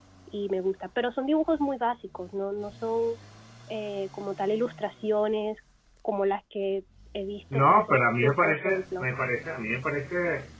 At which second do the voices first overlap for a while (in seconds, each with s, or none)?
7.5 s